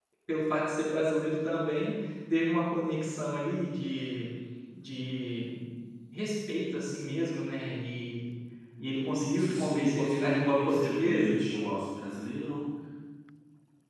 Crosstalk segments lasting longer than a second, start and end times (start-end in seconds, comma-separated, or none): 9.0-11.4